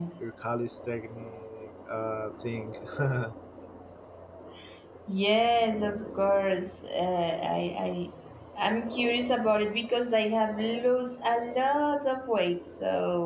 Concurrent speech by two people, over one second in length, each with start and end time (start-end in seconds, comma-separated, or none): none